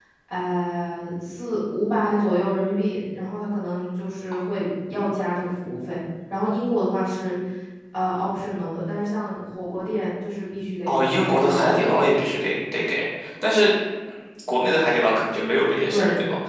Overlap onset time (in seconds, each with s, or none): 10.9 s